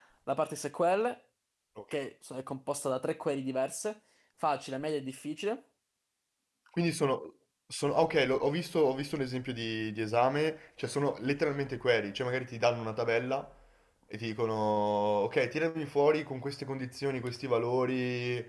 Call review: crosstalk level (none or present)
none